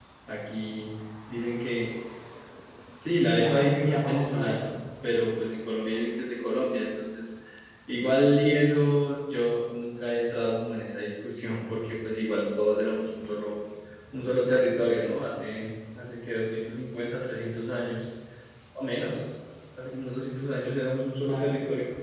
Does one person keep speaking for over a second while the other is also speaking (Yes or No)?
Yes